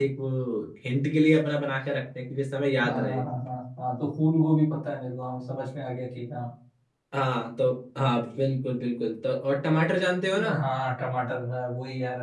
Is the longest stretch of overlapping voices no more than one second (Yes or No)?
Yes